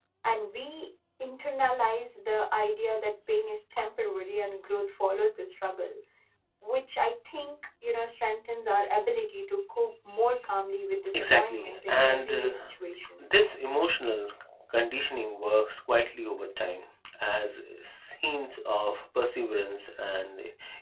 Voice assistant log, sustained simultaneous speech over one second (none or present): present